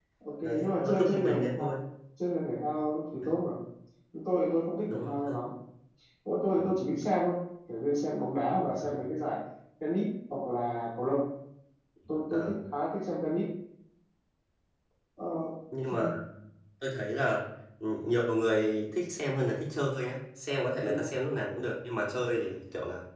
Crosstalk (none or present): present